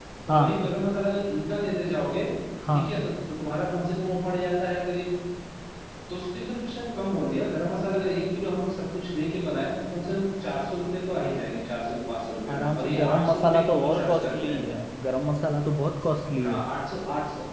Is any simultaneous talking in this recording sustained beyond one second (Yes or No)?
Yes